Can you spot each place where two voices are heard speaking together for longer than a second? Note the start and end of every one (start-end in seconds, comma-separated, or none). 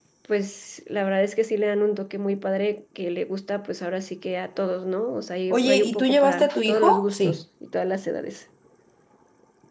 5.5-7.4